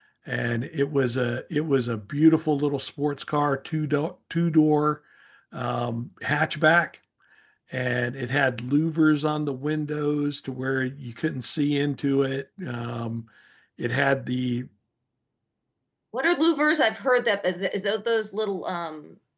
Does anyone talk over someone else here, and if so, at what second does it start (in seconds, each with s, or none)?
none